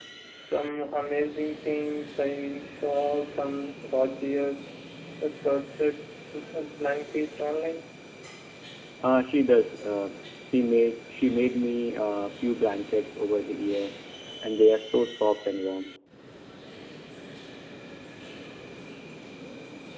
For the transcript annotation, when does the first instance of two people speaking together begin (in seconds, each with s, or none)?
none